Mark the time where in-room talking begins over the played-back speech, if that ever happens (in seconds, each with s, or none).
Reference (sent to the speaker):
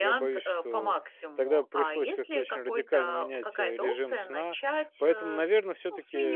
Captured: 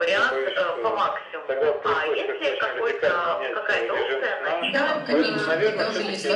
4.6 s